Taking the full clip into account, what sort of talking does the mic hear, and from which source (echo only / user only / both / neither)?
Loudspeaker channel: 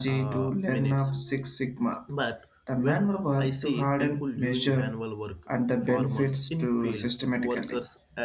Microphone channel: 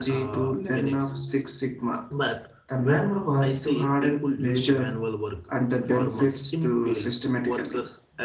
echo only